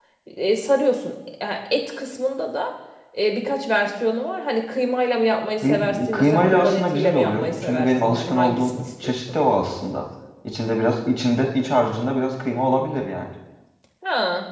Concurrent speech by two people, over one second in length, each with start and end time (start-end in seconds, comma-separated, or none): 5.6-9.4